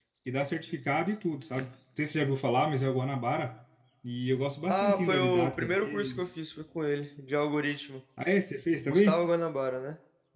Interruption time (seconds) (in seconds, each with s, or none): 4.7 s